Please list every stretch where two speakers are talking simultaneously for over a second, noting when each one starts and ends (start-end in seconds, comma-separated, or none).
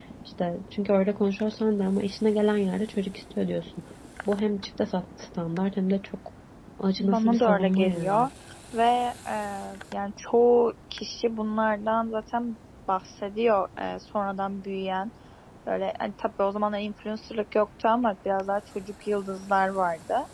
7.0-8.2